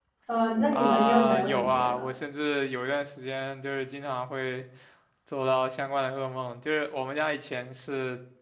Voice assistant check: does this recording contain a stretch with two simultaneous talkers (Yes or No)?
Yes